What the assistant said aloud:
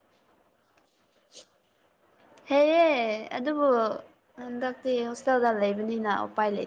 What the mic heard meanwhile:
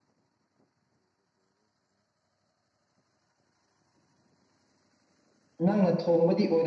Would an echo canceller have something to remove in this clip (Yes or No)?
No